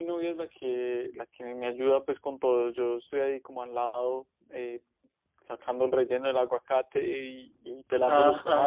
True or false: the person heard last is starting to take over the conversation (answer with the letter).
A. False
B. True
A